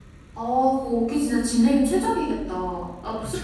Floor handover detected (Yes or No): No